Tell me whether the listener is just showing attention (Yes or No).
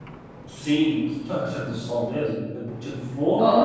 No